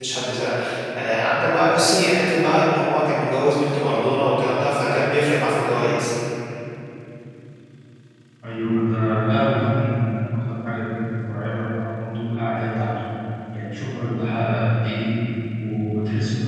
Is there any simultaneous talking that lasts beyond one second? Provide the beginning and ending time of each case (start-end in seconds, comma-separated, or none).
none